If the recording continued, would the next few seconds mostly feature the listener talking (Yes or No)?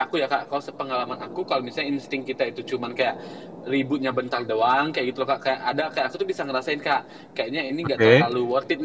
No